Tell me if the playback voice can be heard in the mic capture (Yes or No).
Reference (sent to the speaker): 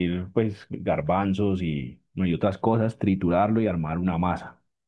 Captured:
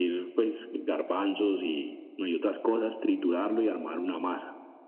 Yes